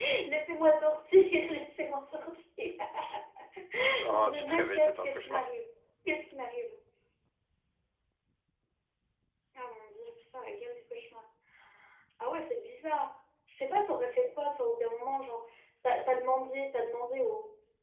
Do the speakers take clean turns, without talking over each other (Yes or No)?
No